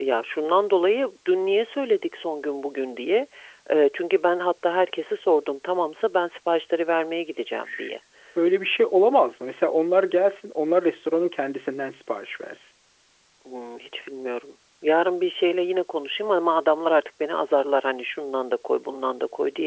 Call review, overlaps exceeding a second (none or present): none